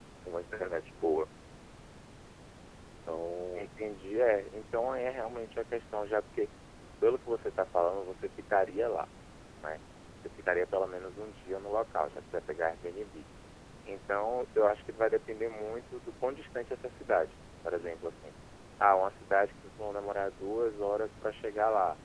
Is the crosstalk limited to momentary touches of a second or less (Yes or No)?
Yes